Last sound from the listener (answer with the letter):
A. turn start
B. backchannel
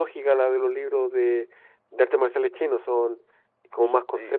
A